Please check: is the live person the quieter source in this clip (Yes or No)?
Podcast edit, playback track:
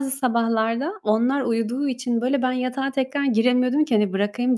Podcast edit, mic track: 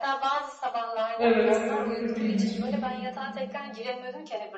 No